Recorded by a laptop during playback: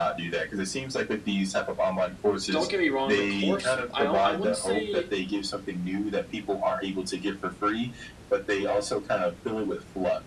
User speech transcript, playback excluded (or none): don't get me wrong, the course I don't I wouldn't say